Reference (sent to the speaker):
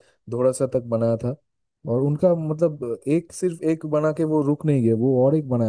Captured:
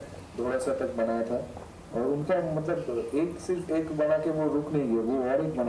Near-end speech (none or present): none